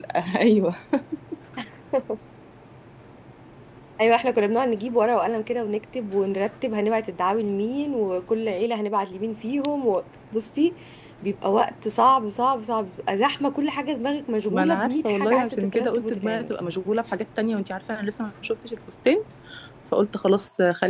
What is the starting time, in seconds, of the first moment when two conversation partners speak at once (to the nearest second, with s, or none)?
14 s